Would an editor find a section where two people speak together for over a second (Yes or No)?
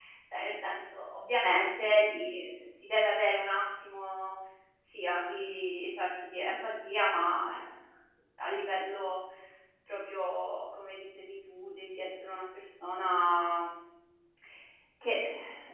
No